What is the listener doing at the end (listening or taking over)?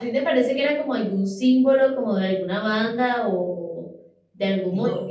listening